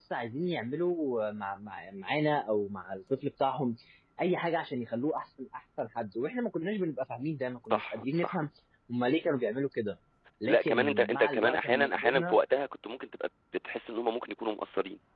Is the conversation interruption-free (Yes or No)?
No